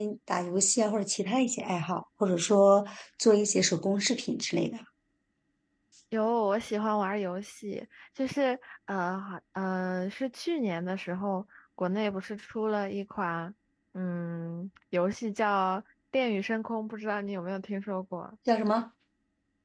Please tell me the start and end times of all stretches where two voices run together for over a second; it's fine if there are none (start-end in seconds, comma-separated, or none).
none